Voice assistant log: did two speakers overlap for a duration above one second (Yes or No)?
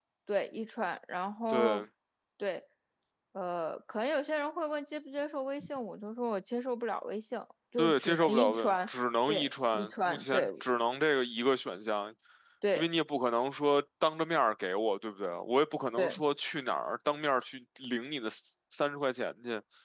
Yes